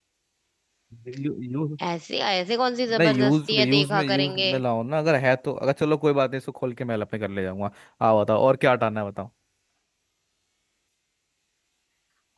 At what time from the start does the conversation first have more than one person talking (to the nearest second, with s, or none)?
3 s